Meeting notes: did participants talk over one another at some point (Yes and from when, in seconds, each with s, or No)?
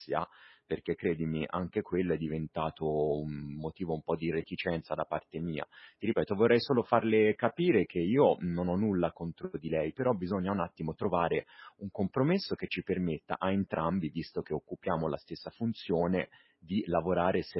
No